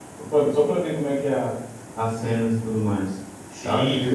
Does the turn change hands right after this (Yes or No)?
Yes